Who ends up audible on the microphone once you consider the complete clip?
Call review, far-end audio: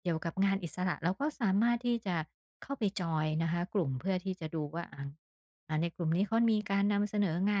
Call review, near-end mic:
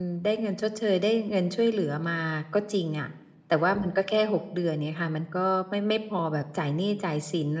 user only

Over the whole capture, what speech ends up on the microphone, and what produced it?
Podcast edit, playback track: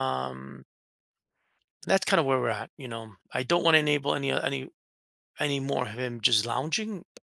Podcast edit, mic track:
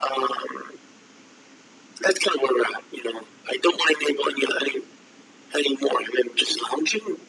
echo only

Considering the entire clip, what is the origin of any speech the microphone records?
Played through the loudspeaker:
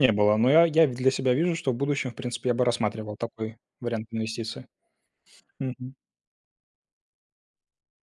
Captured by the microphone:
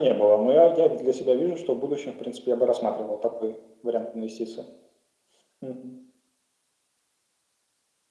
echo only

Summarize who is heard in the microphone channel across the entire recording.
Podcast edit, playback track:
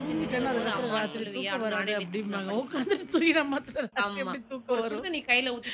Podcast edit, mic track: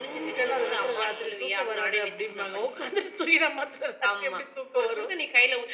echo only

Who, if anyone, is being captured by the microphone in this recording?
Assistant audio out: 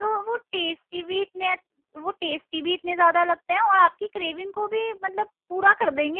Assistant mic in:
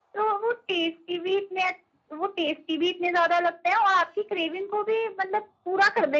echo only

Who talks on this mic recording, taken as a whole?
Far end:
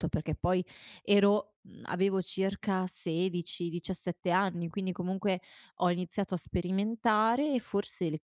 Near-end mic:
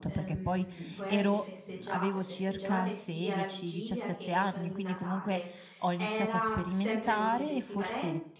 both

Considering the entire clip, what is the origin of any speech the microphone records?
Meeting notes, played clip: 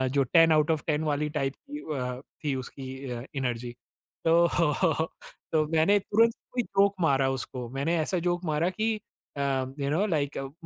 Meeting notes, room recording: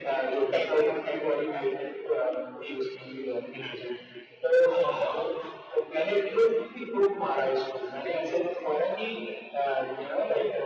echo only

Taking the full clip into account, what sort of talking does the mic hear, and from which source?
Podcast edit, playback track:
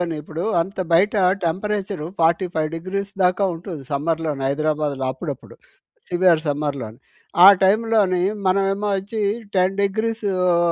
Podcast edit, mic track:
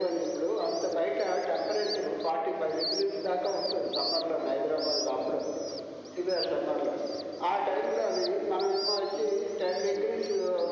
echo only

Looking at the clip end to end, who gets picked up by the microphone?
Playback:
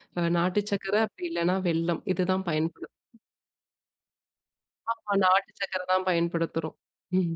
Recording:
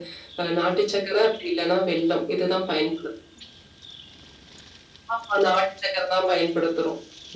echo only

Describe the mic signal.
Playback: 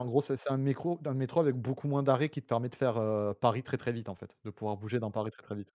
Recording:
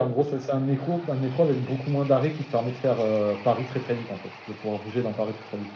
echo only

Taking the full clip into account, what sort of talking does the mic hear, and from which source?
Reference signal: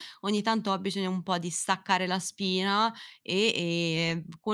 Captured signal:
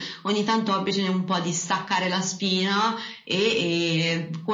echo only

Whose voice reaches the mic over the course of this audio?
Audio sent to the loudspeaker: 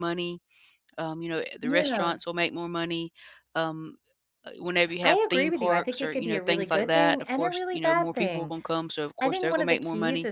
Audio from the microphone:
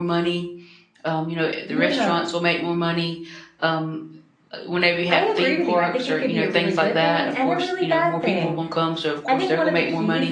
echo only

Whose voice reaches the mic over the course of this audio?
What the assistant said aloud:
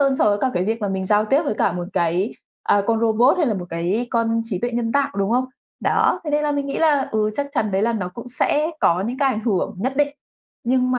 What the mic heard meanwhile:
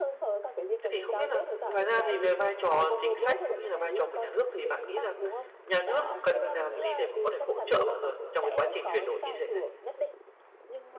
both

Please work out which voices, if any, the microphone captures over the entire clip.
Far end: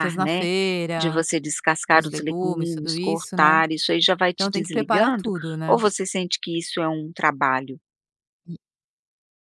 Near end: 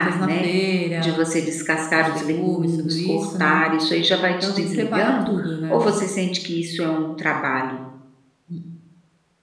echo only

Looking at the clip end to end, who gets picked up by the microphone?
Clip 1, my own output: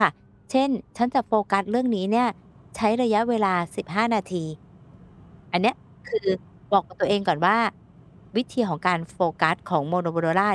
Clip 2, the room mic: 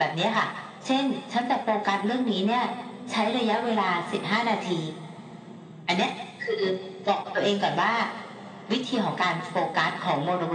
echo only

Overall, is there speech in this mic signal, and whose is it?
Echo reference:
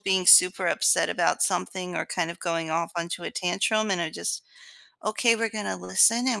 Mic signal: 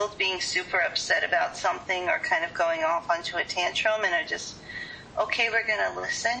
echo only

